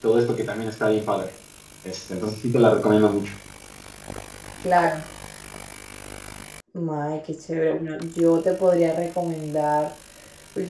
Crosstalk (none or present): none